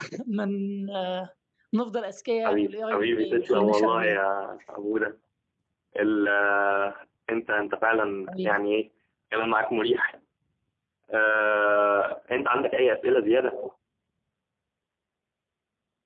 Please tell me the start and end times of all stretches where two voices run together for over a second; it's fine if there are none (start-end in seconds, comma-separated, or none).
2.5-4.2